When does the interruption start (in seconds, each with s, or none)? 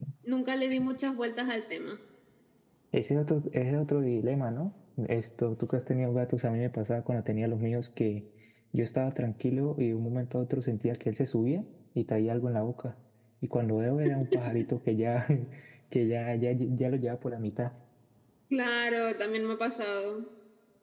none